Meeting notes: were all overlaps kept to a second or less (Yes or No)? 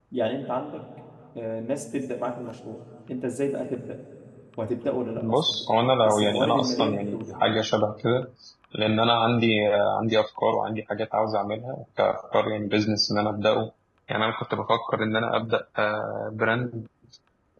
No